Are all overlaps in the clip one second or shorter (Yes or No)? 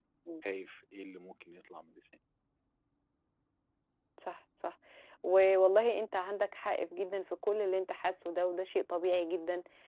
Yes